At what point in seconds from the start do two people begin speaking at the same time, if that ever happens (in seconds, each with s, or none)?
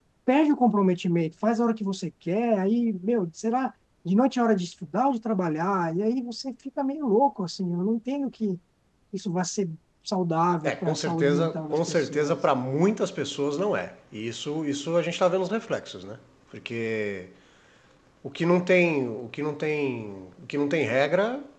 10.6 s